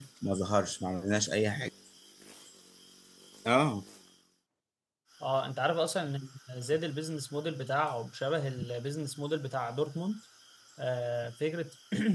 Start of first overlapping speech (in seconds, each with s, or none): none